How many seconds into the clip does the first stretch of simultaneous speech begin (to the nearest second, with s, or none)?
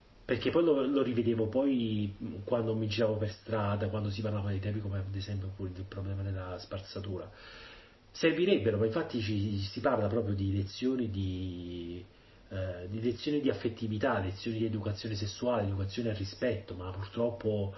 none